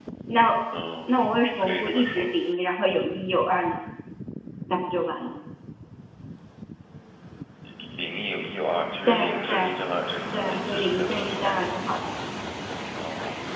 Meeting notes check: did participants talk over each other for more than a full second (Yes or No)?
Yes